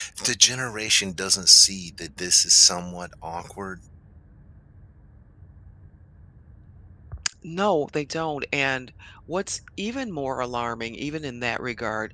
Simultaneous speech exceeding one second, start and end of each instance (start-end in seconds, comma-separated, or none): none